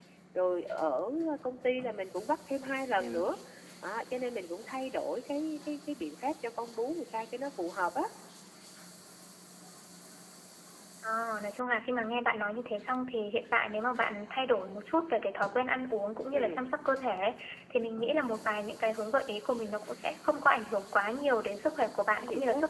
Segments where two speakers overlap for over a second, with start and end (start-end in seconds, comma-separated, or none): none